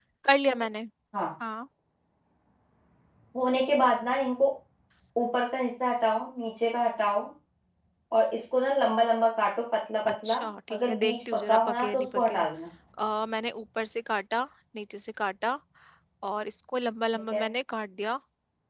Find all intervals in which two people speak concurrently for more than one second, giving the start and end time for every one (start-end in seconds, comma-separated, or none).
10.1-12.4